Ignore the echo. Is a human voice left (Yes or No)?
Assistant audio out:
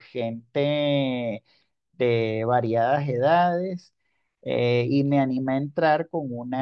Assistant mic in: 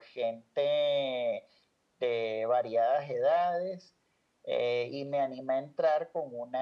No